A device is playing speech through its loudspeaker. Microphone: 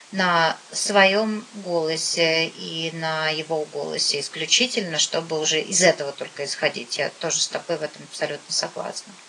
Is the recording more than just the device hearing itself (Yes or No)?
Yes